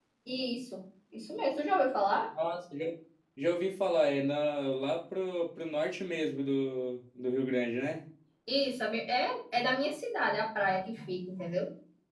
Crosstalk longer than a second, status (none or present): none